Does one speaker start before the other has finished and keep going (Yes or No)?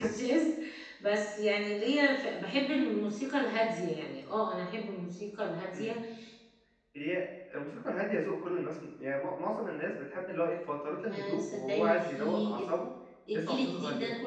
Yes